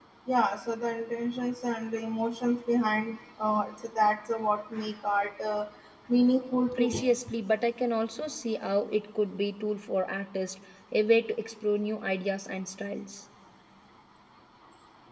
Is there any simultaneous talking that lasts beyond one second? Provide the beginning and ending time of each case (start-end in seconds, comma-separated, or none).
none